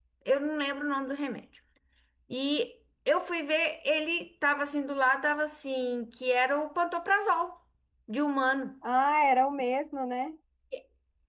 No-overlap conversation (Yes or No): Yes